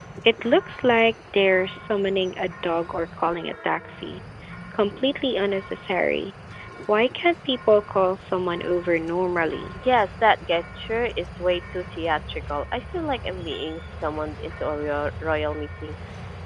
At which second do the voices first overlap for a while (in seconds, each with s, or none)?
none